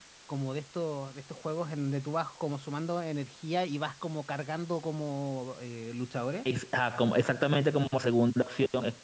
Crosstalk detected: No

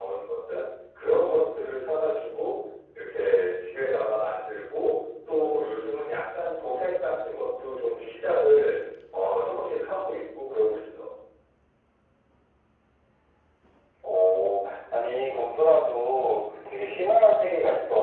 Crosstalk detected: No

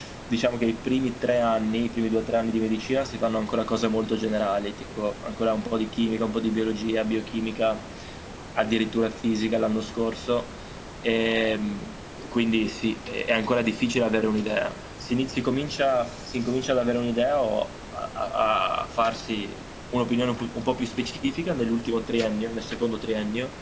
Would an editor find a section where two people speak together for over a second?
No

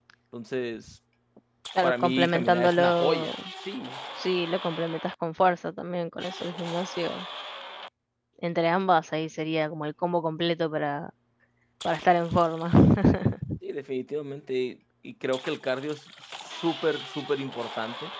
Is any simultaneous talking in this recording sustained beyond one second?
Yes, from 1.8 s

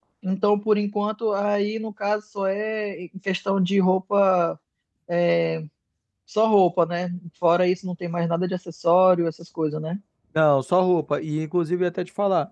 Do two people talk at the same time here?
No

